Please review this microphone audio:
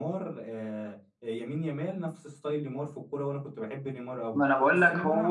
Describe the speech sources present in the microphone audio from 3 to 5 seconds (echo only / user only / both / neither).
both